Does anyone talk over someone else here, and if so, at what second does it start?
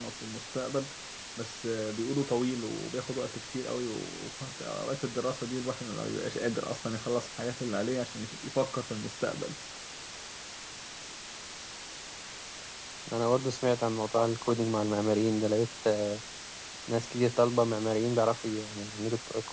none

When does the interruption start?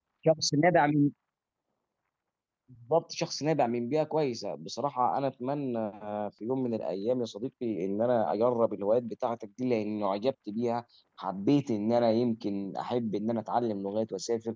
none

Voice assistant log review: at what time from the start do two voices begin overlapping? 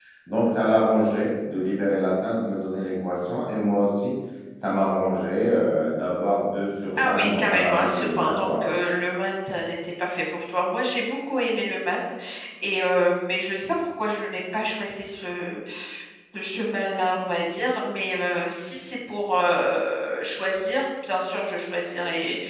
7.0 s

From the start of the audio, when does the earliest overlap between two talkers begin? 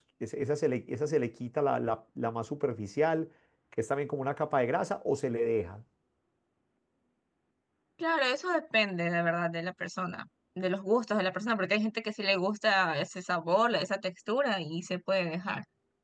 none

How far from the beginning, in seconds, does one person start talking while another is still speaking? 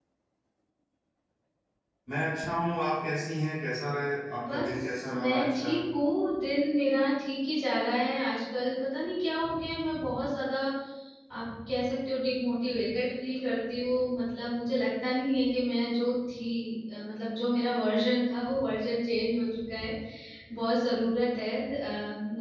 4.3 s

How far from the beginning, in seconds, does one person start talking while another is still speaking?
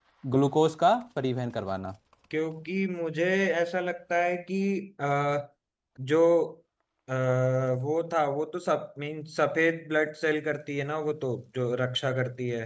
none

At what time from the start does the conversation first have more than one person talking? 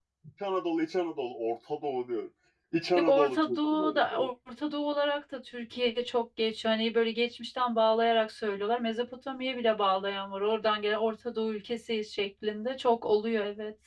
3.0 s

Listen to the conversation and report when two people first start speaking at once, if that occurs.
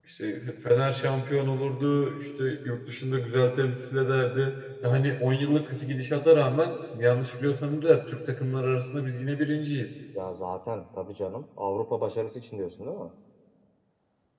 none

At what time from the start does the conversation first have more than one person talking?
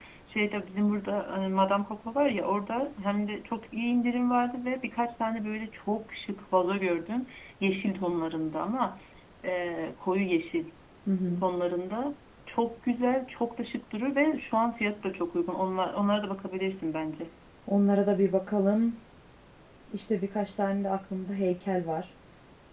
none

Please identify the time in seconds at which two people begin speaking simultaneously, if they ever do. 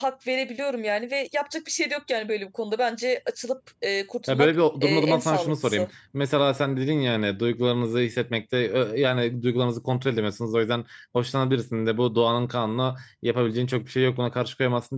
4.3 s

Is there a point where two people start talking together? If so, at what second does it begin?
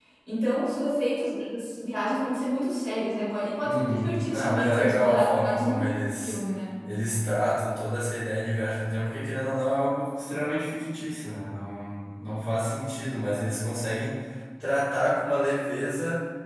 3.6 s

